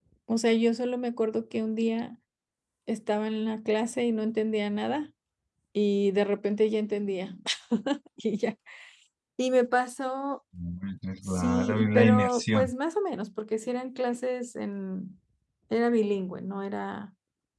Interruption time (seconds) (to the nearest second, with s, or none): 11 s